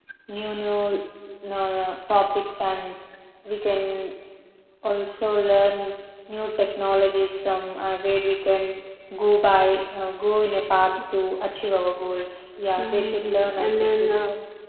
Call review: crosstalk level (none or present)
present